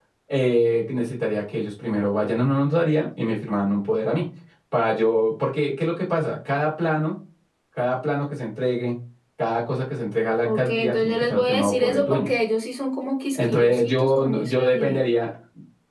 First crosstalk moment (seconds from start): 10.4 s

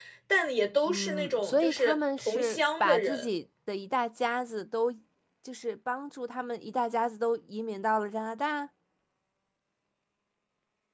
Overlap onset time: 0.9 s

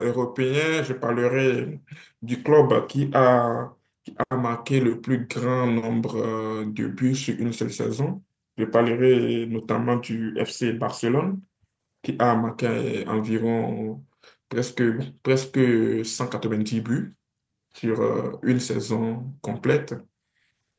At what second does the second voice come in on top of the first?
none

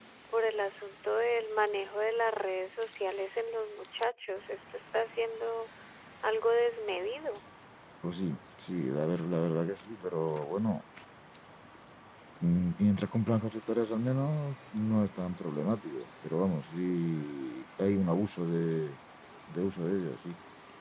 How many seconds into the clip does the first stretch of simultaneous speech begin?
none

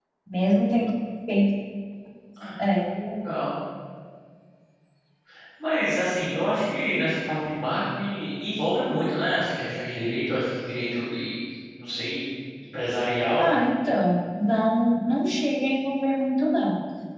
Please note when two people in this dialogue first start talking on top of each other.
none

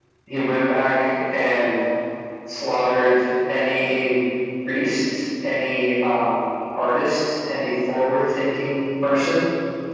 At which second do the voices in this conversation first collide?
none

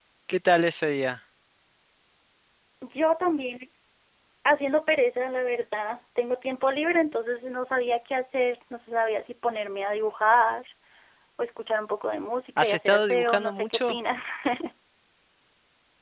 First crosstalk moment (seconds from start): 12.6 s

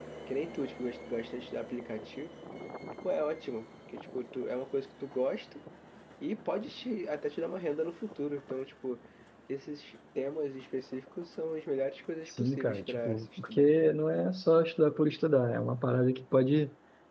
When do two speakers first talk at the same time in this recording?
12.3 s

